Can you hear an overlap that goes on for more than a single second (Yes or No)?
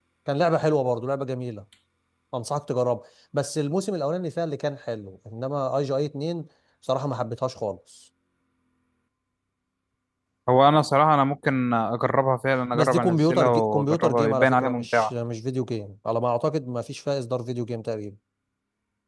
Yes